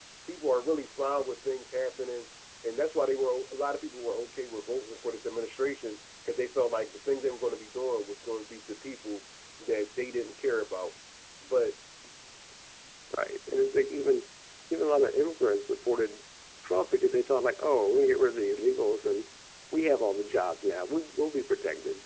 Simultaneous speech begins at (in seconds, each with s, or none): none